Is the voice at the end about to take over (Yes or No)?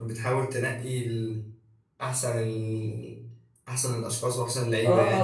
Yes